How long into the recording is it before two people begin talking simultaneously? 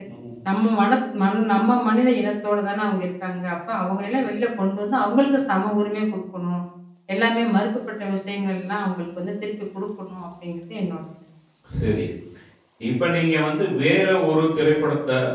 none

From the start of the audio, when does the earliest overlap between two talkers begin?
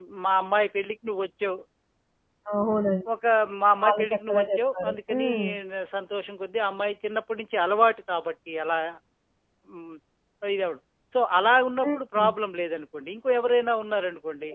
3.8 s

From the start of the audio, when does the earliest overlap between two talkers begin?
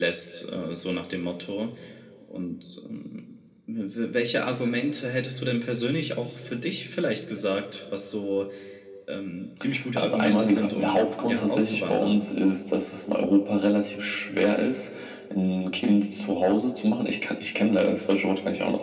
10.0 s

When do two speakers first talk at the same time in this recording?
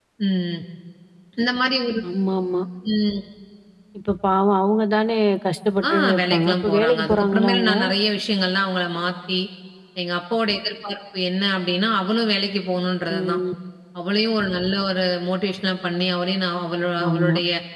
5.9 s

